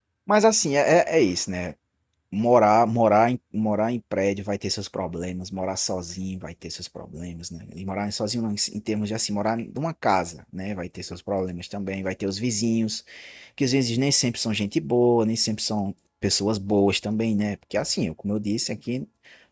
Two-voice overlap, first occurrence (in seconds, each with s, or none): none